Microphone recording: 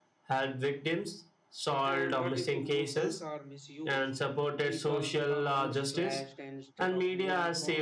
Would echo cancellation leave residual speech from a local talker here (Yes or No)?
Yes